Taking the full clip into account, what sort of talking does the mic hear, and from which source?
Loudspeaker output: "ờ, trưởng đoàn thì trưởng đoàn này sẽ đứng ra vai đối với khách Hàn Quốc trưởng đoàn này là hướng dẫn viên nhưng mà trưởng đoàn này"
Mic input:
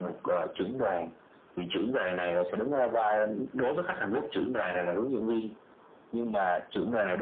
echo only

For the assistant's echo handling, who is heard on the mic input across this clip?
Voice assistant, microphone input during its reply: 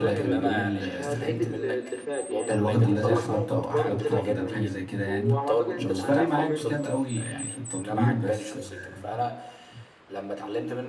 both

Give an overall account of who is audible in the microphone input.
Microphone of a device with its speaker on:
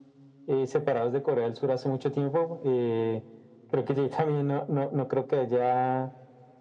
echo only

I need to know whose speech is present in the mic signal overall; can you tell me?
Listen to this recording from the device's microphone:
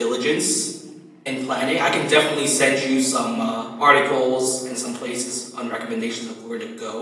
user only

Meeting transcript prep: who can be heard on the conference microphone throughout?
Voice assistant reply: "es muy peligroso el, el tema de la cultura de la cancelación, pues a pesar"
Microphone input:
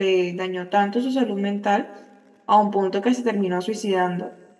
user only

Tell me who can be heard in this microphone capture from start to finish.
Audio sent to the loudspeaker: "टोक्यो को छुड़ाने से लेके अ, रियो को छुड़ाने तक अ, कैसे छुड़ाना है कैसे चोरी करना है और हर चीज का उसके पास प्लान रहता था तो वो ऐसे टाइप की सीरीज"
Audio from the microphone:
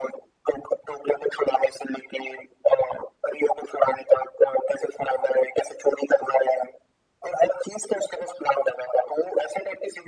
echo only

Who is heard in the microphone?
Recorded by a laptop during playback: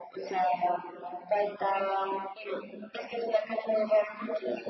echo only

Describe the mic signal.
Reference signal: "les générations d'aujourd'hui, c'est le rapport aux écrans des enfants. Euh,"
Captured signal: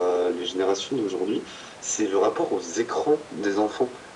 echo only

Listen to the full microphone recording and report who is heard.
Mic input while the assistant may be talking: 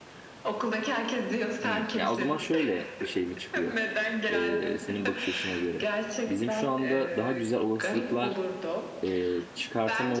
both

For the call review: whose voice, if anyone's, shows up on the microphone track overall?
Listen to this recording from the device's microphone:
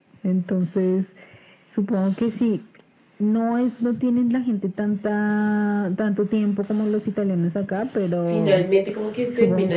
both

